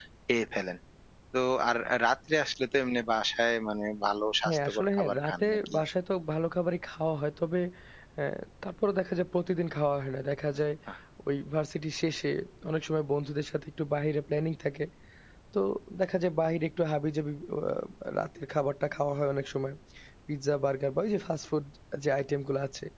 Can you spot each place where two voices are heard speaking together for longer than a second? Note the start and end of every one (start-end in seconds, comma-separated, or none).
4.5-5.8